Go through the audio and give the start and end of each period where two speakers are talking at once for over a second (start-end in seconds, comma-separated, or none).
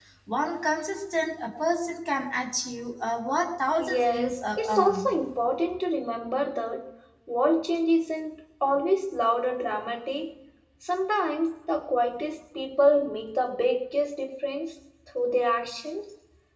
3.8-5.1